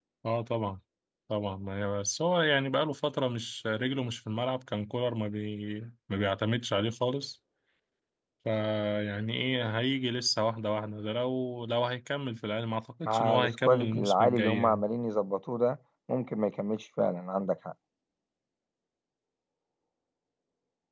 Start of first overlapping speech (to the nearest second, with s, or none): 13 s